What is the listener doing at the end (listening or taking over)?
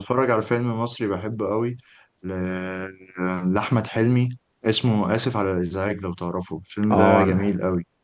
taking over